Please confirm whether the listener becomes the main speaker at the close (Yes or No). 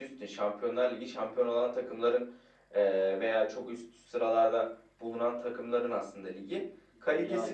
No